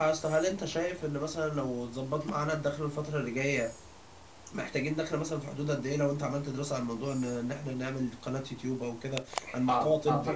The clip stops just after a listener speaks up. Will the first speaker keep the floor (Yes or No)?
No